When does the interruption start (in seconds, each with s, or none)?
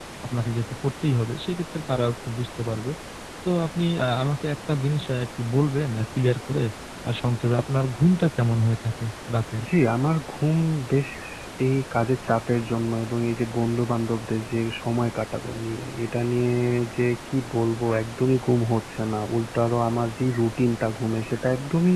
none